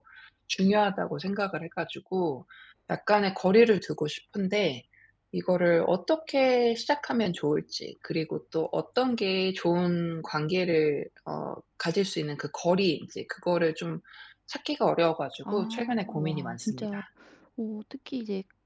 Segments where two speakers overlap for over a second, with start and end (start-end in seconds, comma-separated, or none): 15.4-17.0